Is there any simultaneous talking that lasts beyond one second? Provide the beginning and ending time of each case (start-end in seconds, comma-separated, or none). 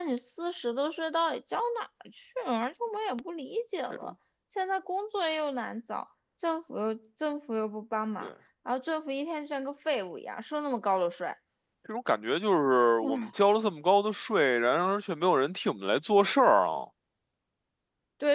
none